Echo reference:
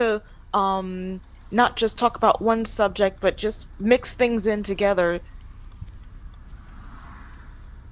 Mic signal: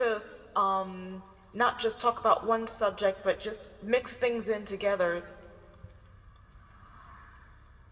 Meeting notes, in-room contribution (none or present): none